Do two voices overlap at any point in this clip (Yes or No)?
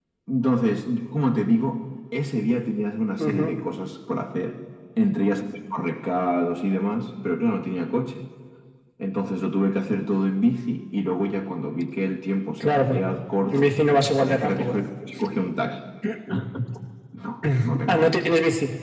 Yes